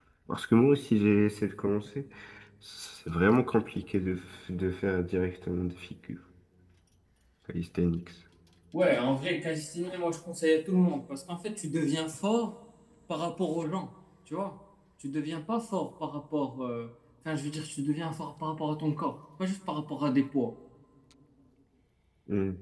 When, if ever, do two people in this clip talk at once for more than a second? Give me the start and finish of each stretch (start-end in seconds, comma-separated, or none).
none